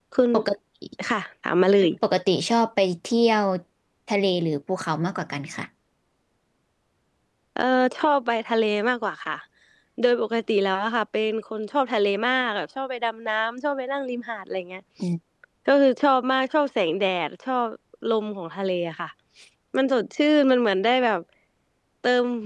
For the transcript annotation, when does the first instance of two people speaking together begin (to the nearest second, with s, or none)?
none